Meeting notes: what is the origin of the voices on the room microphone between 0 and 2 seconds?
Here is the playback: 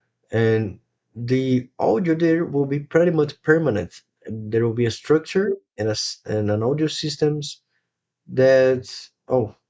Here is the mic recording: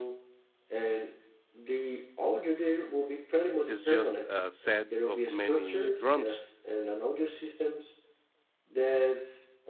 echo only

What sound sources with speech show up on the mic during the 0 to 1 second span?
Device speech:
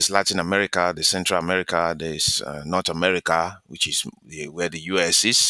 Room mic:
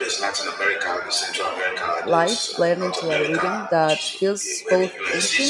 echo only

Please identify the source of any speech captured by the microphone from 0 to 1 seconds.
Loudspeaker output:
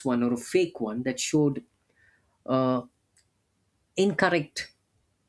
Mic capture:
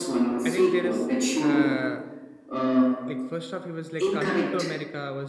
both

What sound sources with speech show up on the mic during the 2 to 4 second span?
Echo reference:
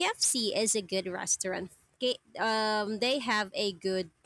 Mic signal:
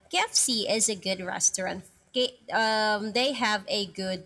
echo only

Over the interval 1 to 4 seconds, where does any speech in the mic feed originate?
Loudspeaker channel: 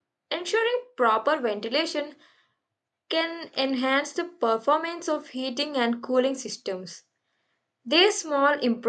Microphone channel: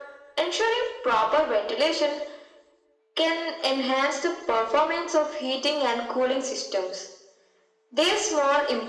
echo only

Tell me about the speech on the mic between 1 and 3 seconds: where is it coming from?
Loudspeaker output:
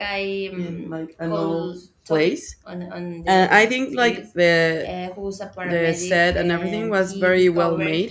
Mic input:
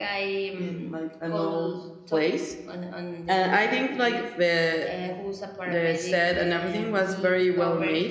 echo only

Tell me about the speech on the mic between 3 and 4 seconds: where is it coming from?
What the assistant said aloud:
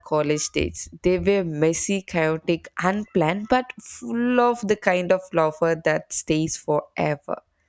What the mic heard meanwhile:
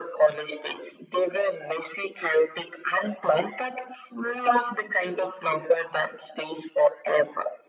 echo only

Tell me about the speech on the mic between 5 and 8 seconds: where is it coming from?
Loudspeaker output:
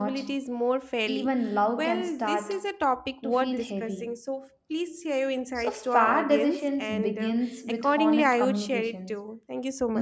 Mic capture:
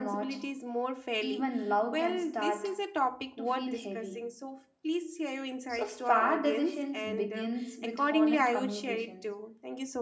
echo only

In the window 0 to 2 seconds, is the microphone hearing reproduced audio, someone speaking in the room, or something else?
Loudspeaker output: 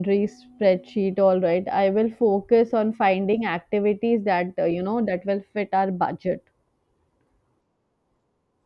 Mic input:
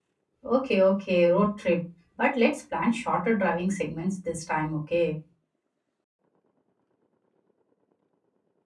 user only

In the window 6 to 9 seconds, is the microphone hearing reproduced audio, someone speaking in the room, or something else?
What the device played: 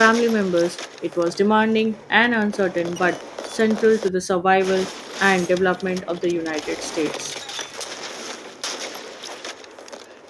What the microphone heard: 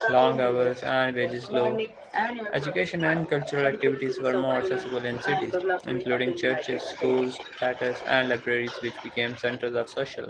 both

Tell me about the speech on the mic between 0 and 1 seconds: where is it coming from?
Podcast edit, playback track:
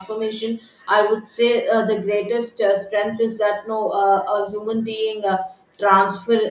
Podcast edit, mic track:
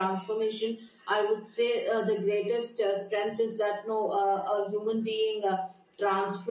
echo only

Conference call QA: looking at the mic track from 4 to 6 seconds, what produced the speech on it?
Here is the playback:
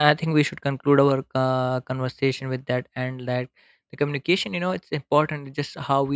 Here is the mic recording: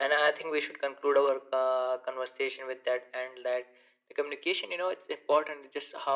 echo only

